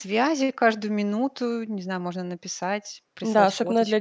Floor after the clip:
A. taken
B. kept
A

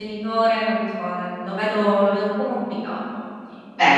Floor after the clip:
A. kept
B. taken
B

